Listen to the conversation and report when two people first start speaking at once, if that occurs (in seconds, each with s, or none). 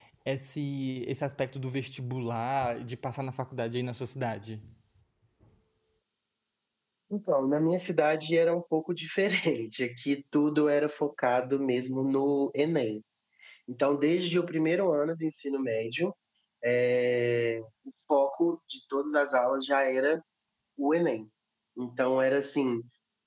none